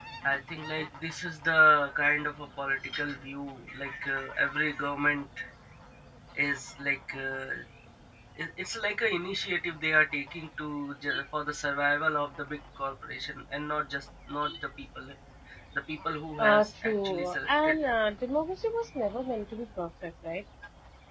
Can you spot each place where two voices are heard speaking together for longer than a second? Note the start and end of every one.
16.4-17.8

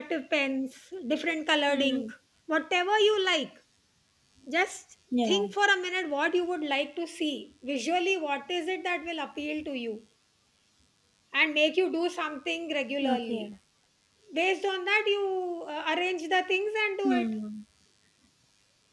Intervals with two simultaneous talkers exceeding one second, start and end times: none

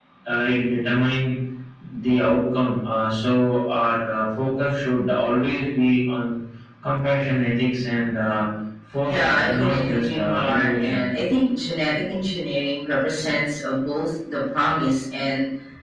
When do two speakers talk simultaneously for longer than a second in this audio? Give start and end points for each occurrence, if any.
9.1-11.0

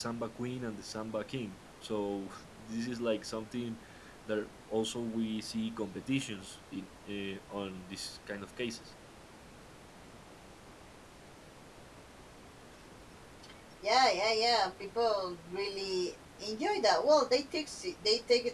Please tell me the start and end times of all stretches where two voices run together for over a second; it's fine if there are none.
none

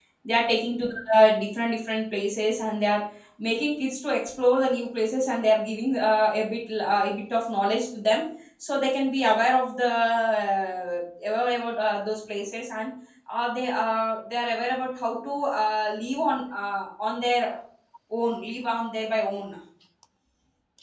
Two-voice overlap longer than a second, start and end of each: none

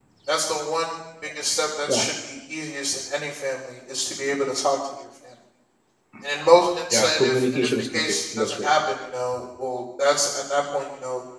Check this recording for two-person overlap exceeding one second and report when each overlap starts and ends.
6.9-8.7

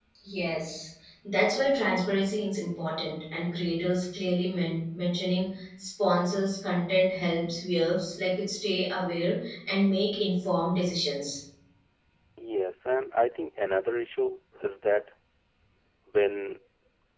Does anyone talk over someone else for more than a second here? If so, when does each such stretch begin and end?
none

